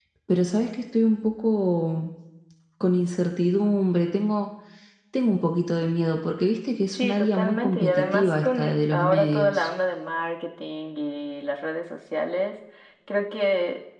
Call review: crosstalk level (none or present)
present